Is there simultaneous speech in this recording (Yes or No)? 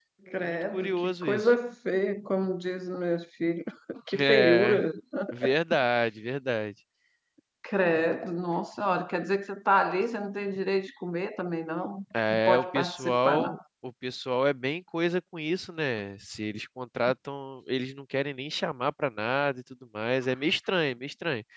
Yes